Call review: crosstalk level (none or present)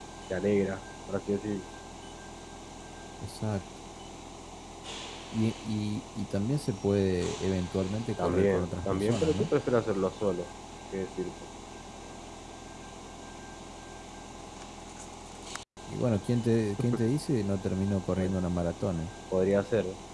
present